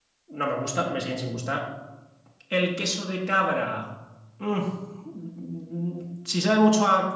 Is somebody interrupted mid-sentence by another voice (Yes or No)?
No